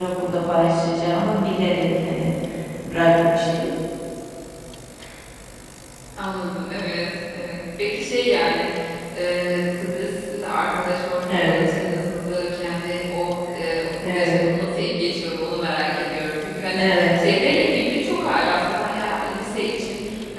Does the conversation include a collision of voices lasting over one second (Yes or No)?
No